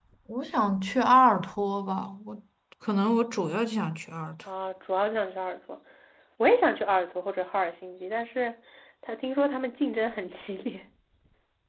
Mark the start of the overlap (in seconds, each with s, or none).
none